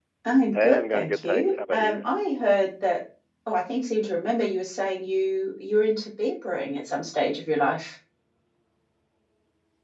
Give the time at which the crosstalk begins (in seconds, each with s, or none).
0.5 s